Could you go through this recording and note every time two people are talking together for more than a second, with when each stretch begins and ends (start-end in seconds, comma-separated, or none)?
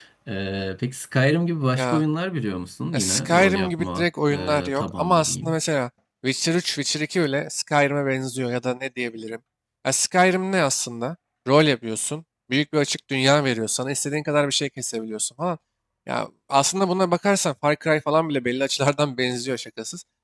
2.9-5.6